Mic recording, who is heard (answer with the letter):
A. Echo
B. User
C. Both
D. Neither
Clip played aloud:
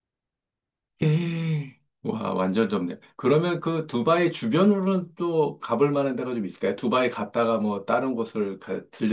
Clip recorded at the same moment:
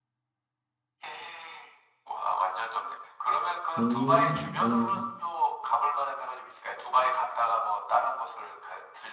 C